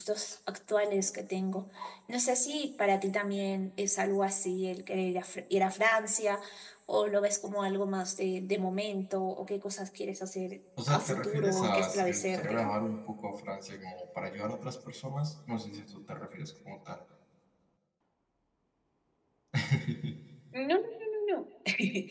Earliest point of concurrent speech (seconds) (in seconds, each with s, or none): 10.8 s